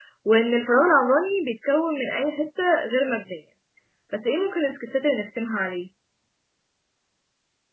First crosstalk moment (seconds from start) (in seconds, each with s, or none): none